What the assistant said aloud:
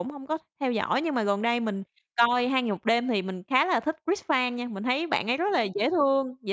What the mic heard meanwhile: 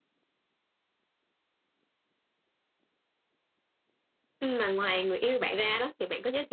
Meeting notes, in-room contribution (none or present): present